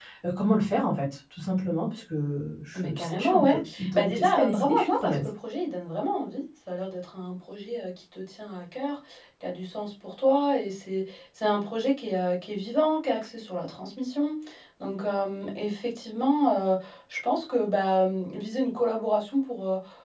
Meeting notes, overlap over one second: present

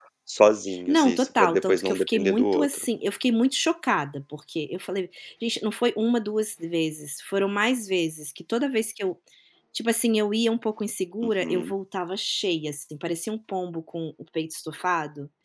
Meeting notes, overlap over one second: present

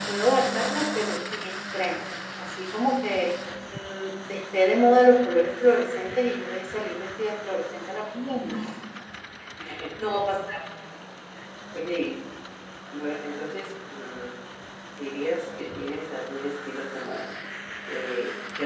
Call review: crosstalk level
none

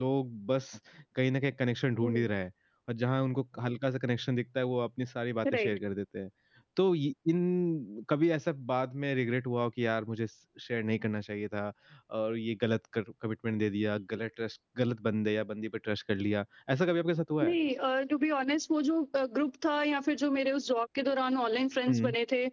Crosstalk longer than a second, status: none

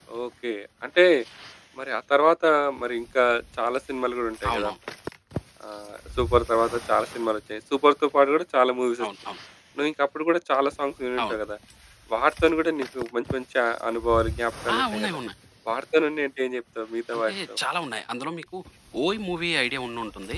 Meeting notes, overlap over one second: none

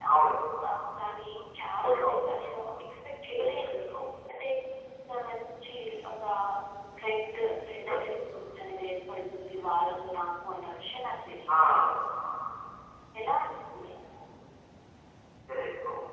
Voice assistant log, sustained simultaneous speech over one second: none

